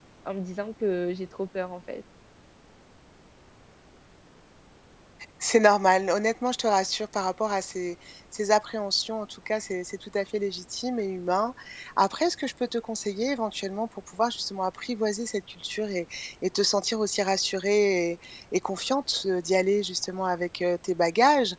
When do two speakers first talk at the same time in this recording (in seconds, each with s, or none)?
none